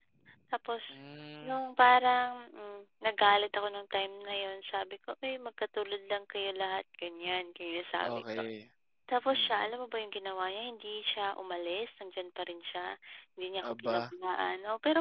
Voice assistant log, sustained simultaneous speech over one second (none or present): none